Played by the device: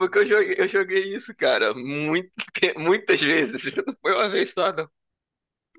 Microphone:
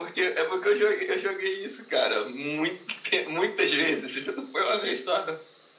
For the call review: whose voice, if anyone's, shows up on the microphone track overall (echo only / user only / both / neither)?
echo only